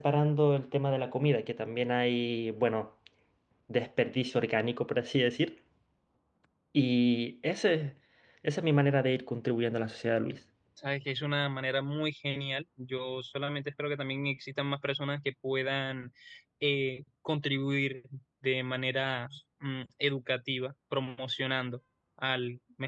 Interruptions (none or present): none